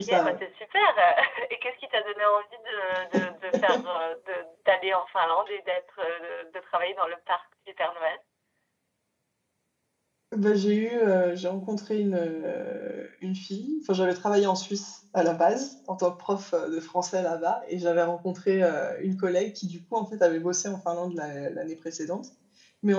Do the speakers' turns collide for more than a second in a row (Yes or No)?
No